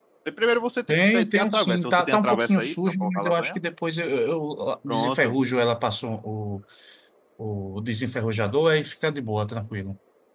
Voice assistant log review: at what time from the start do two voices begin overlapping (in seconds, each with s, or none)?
0.9 s